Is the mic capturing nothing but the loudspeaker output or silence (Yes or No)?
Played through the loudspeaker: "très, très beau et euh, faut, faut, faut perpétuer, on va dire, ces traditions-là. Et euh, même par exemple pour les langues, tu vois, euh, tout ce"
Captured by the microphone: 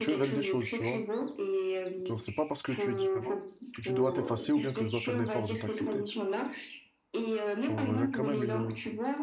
No